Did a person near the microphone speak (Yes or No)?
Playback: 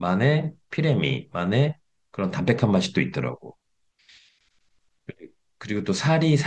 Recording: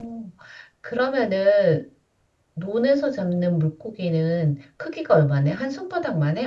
Yes